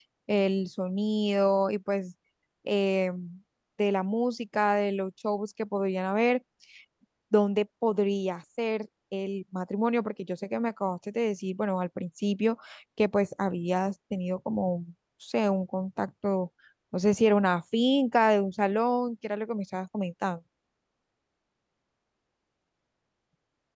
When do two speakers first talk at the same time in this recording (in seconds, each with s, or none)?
none